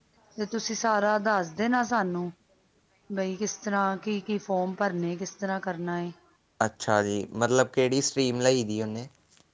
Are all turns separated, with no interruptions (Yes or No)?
Yes